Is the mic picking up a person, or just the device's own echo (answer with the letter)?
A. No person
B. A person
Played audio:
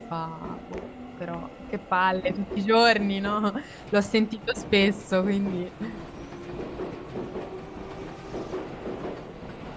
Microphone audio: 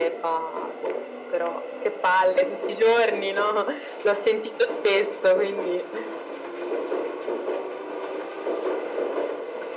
A